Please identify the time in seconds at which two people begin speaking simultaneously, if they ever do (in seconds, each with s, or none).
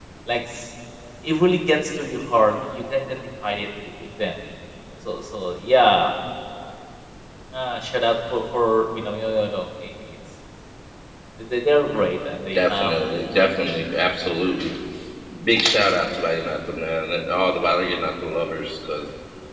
12.5 s